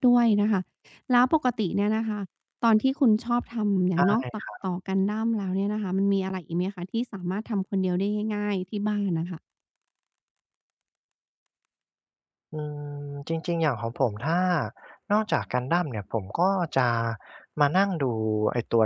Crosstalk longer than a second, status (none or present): none